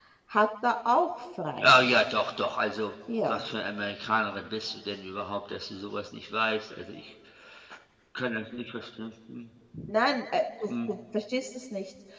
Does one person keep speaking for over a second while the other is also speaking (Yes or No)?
No